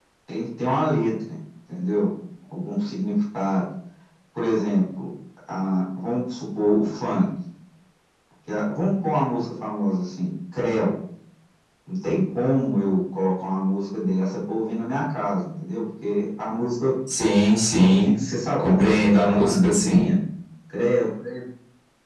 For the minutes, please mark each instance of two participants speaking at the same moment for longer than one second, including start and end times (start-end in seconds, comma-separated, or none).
18.6-20.1